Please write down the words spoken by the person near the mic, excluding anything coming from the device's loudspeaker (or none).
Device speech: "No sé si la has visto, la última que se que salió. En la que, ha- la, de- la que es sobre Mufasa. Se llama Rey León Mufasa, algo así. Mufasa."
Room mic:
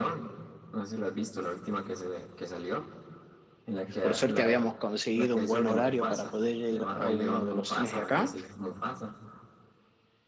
por suerte habíamos conseguido un buen horario para poder ir a uno de los cines de acá